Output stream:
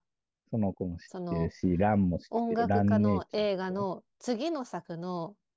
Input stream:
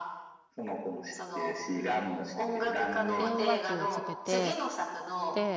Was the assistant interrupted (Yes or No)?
Yes